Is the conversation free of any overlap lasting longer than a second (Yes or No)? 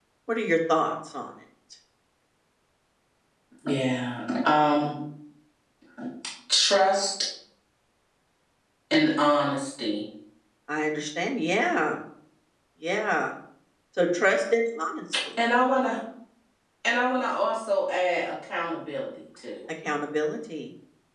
Yes